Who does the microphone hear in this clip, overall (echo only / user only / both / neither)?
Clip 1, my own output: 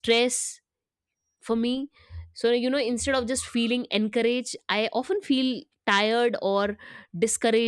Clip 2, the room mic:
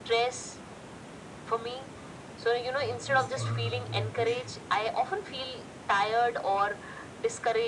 both